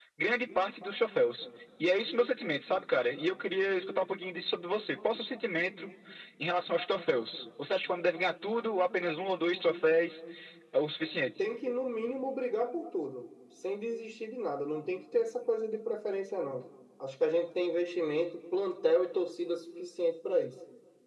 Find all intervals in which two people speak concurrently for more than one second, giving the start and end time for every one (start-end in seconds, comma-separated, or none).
none